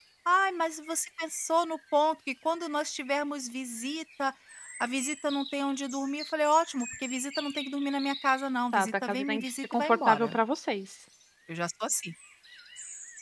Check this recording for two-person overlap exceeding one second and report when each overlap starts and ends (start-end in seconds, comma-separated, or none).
8.7-10.4